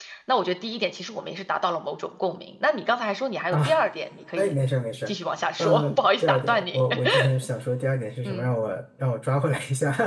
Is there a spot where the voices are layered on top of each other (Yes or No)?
Yes